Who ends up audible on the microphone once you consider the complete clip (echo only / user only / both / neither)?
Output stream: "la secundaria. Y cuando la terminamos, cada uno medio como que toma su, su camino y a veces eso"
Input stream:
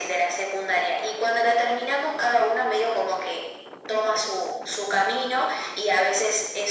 echo only